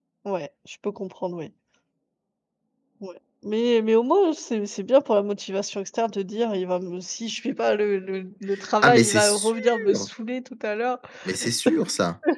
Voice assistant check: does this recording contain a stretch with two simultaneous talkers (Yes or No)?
Yes